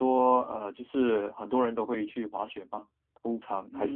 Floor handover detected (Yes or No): Yes